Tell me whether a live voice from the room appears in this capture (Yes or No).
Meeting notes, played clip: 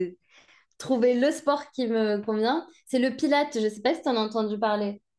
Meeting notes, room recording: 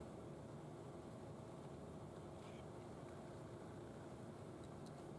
No